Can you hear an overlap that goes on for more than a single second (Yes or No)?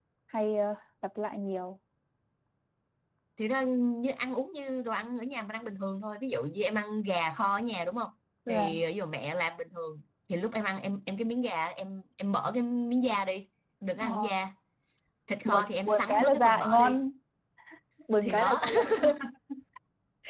Yes